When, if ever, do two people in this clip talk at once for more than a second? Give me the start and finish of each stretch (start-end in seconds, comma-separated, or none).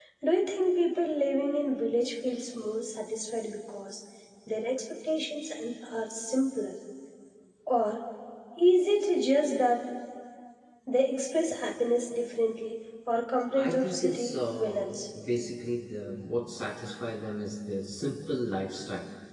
13.6-14.9